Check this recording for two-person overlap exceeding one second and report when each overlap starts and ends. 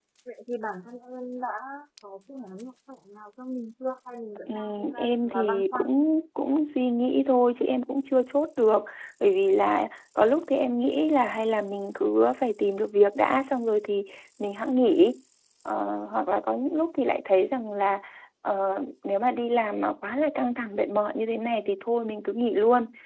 4.6-5.8

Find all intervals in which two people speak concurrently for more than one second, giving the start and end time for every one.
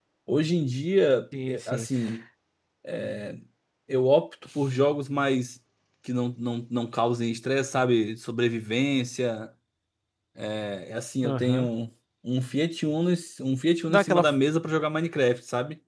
none

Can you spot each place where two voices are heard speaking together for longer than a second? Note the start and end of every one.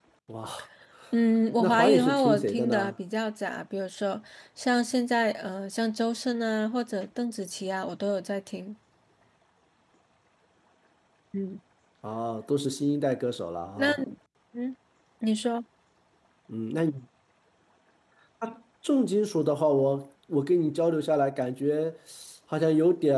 1.6-2.9

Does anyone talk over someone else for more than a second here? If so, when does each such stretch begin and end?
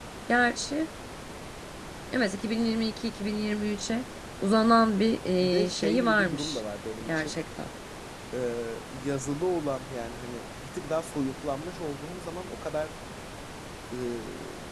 5.4-6.6

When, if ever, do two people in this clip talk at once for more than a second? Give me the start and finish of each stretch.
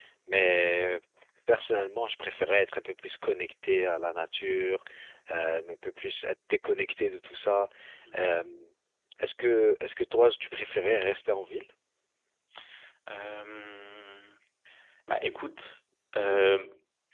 none

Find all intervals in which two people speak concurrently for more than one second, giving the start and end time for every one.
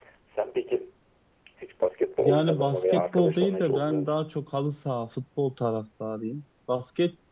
2.2-4.3

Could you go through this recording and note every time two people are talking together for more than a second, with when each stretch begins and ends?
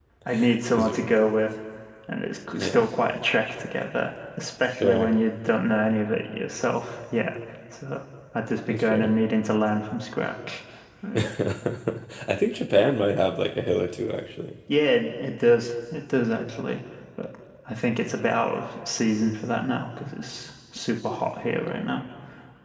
none

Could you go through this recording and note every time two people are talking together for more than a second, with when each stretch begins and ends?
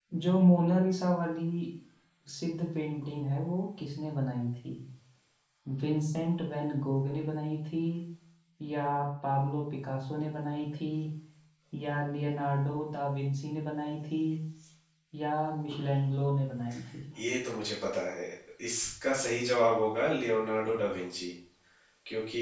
none

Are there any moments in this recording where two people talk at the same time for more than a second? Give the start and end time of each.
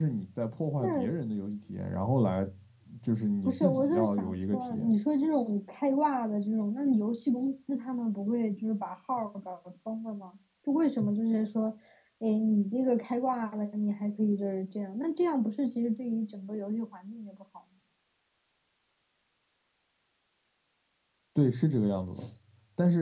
3.5-4.9

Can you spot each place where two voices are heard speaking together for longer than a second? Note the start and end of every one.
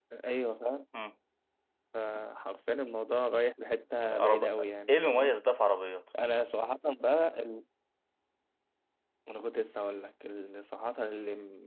4.1-5.3

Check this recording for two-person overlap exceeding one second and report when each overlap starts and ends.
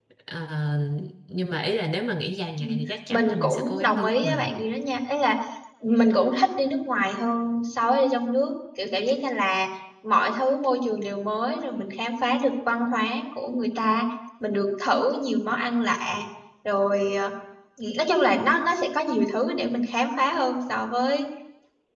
3.1-4.5

